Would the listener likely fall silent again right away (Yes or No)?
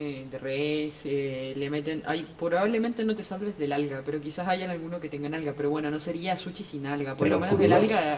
Yes